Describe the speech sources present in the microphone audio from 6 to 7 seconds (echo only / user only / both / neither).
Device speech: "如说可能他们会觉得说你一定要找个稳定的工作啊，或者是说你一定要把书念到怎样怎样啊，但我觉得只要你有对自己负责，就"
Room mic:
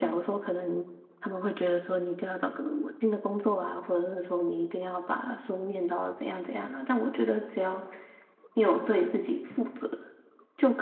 echo only